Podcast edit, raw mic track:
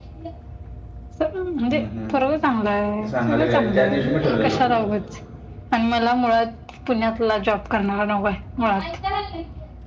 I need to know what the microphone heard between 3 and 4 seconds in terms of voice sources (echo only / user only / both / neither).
both